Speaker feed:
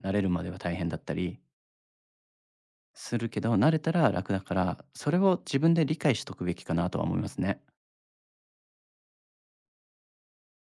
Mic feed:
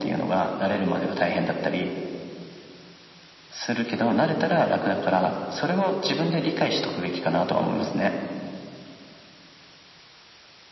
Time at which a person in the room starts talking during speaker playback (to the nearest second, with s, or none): none